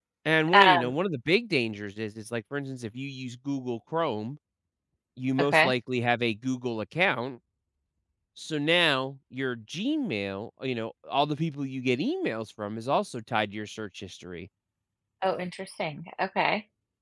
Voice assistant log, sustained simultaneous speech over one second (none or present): none